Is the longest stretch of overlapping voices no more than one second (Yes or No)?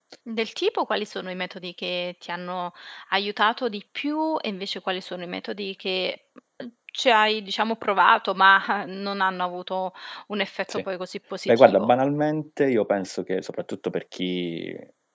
Yes